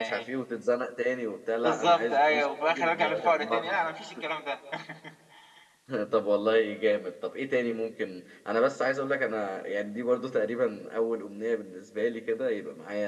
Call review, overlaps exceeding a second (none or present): present